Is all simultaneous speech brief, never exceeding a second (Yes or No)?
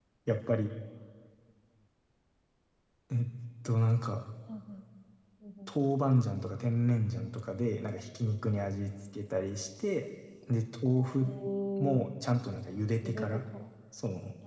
Yes